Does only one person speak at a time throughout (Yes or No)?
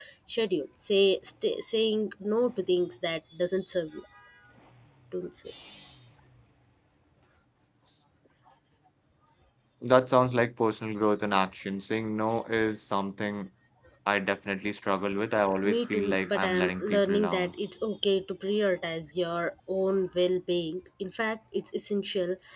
No